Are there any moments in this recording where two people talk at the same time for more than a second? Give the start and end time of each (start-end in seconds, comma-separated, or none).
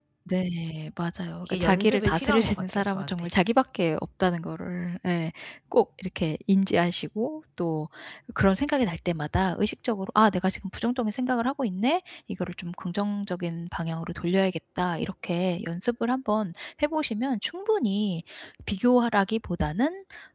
1.4-3.3